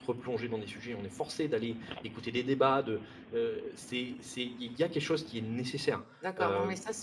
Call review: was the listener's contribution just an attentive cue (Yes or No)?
No